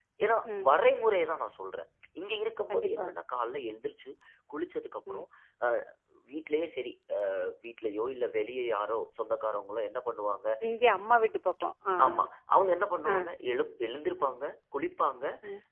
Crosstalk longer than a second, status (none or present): none